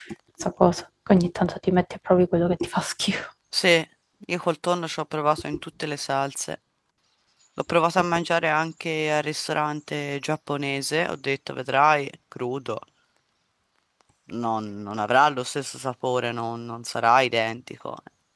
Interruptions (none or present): none